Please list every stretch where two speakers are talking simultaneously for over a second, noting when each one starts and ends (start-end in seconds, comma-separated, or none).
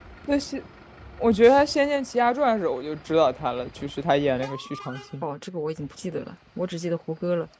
none